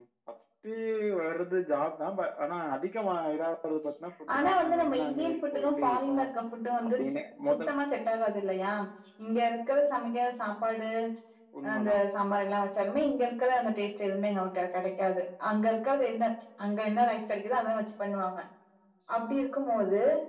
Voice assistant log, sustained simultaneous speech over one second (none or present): present